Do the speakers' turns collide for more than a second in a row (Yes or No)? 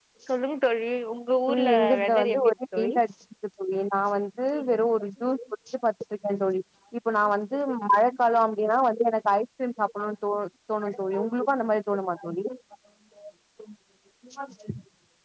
Yes